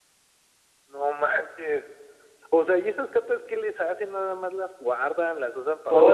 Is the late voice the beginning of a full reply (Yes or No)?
Yes